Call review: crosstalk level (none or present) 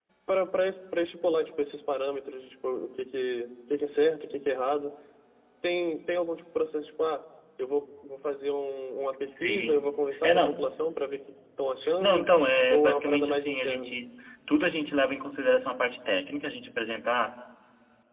present